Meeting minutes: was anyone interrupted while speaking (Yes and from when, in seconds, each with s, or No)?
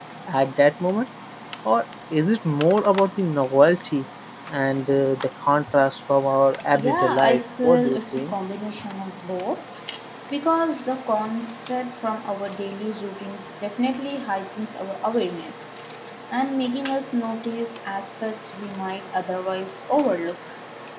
Yes, from 6.7 s